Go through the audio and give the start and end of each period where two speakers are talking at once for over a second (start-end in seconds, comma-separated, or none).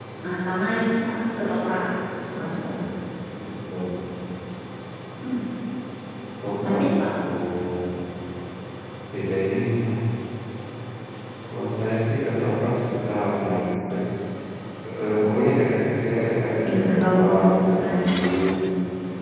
16.6-18.1